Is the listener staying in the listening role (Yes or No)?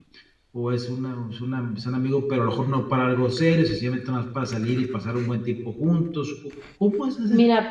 No